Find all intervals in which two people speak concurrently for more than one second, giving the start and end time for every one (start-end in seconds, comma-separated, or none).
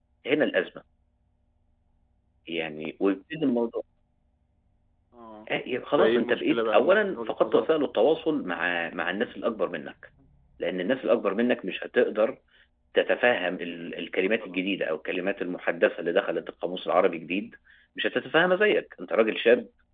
5.9-7.7